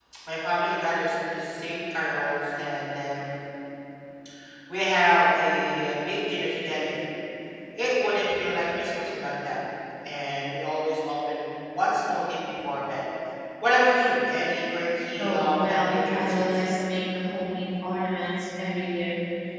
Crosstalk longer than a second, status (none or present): present